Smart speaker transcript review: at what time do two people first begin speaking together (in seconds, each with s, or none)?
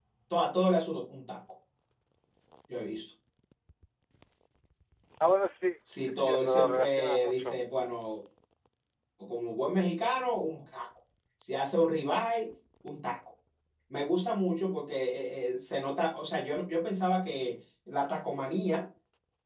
6.0 s